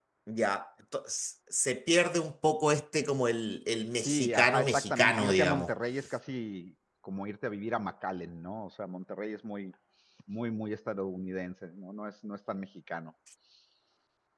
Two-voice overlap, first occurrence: 4.0 s

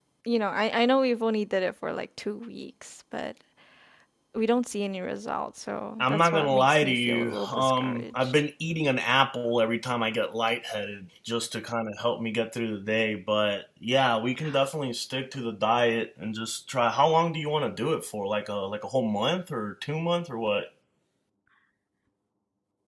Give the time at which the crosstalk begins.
6.0 s

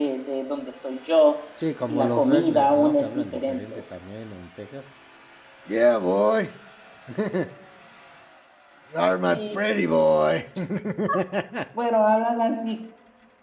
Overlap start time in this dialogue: 1.9 s

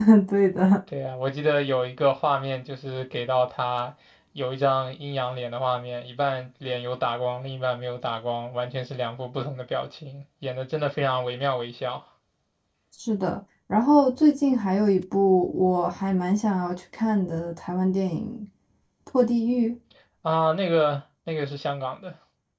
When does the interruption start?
none

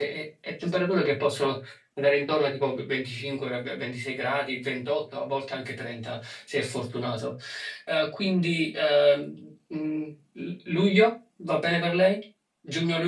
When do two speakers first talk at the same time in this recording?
none

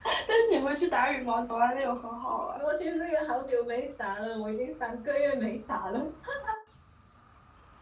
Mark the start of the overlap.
none

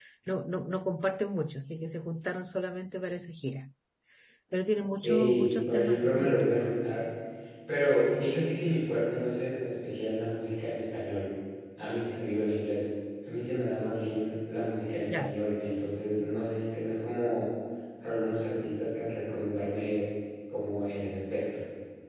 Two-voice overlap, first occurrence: 5.0 s

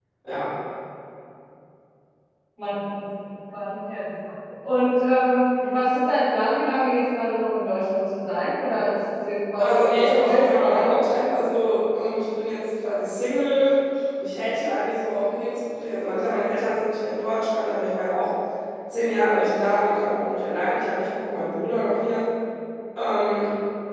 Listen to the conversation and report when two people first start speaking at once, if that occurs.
9.6 s

